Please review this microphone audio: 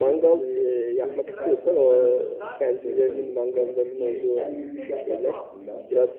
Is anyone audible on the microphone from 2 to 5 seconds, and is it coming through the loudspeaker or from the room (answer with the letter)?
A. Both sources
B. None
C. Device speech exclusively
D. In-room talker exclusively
A